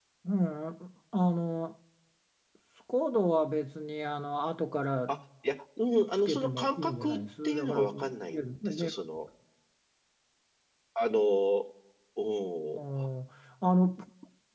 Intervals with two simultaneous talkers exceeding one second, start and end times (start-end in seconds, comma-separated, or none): 6.2-9.0